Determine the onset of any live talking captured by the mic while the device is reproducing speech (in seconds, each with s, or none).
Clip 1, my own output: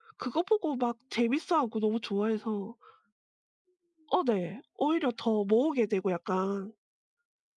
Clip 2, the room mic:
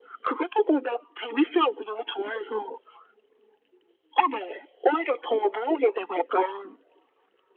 none